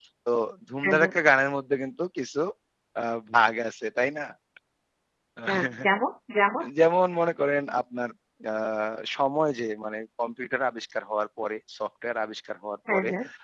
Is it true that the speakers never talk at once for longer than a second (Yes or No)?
Yes